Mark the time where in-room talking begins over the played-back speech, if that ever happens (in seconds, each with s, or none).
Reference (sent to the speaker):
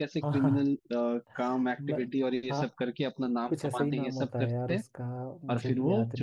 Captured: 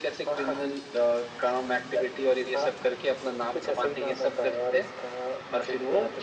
none